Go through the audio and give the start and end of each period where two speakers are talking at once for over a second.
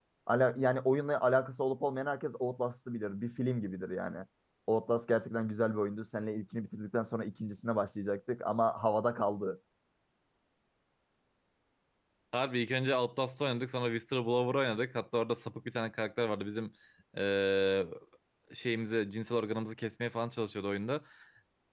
none

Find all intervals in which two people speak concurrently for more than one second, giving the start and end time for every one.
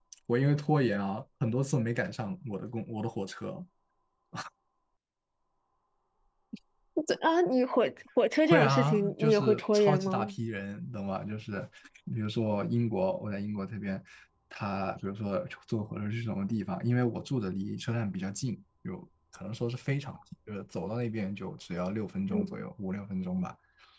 8.4-10.3

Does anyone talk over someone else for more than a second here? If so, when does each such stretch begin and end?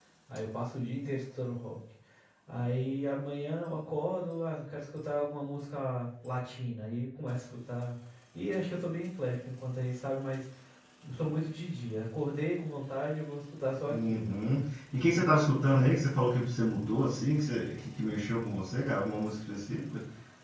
none

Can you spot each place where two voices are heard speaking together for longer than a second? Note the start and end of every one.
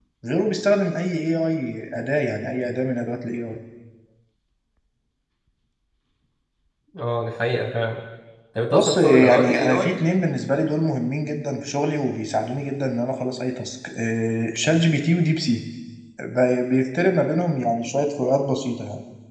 8.7-10.0

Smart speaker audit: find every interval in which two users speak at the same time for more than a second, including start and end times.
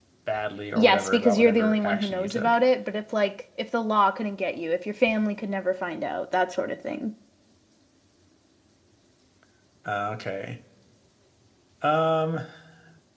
0.8-2.5

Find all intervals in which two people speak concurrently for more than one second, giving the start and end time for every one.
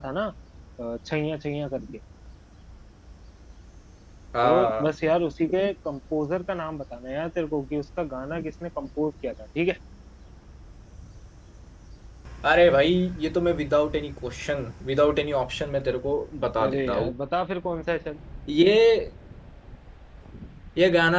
none

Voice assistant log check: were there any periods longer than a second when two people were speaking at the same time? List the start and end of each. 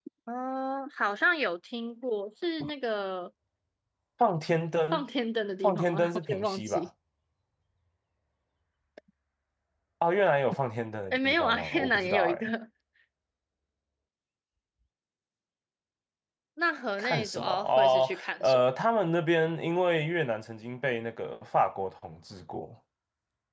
5.6-6.9, 11.1-12.5, 17.0-18.6

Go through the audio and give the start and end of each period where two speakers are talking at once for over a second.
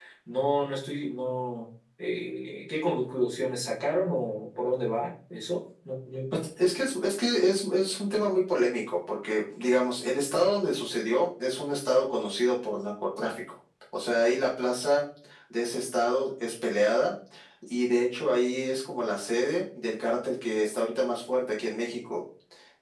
none

